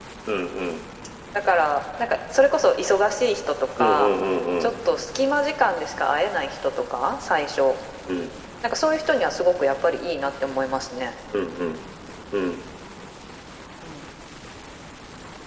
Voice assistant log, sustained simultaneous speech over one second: none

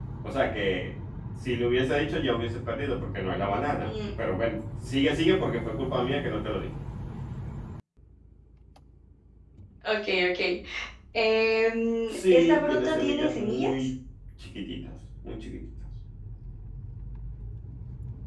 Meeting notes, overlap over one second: present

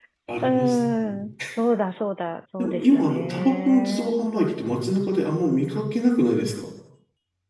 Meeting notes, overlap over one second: present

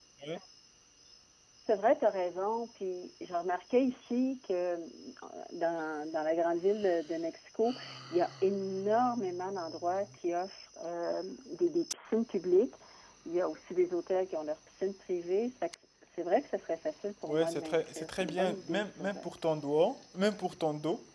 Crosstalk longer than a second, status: present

